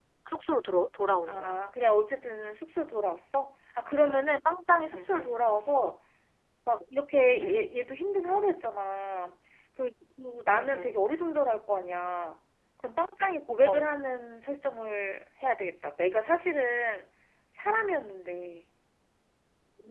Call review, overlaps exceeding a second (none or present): none